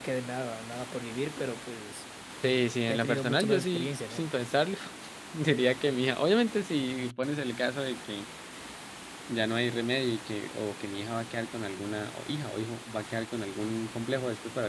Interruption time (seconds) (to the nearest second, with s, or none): 3 s